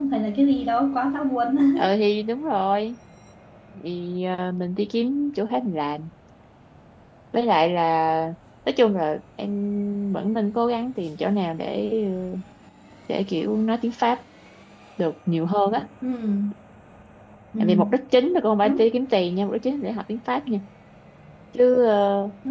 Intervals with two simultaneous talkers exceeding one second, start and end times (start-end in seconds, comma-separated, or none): none